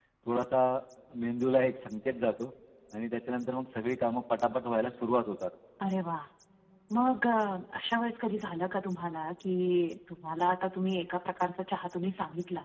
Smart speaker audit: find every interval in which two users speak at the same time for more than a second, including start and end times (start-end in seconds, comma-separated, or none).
none